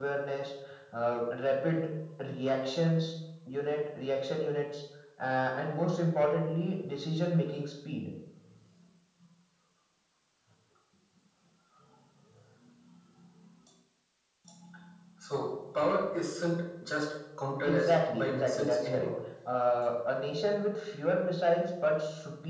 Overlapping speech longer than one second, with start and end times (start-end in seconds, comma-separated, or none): 17.6-19.1